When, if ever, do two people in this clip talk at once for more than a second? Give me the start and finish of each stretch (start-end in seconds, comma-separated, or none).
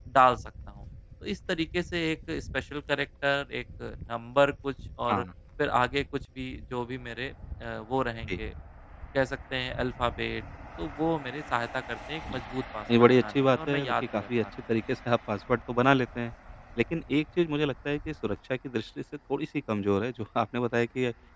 13.0-14.4